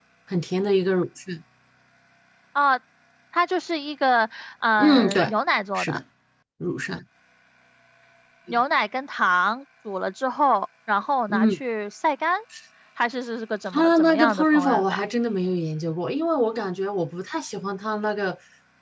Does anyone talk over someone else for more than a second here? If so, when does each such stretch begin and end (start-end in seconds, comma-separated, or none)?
13.7-15.1